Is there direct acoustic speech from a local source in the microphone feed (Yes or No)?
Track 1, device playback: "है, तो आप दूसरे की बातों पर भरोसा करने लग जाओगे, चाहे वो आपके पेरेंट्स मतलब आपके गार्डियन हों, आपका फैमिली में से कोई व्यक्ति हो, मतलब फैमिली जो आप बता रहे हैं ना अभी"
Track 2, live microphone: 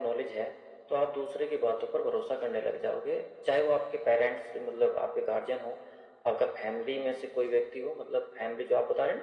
No